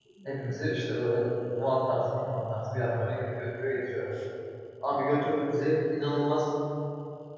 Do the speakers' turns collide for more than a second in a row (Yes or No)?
No